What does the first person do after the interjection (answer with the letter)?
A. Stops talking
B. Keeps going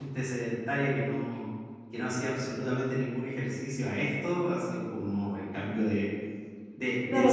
B